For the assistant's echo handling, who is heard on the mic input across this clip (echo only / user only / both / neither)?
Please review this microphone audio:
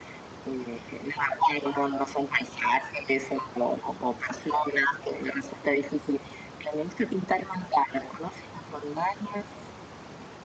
echo only